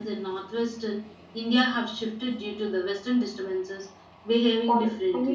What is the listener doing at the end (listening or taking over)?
taking over